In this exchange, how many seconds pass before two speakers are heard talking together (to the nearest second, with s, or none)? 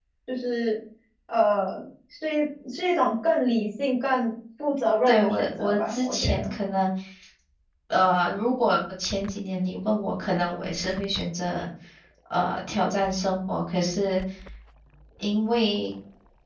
5 s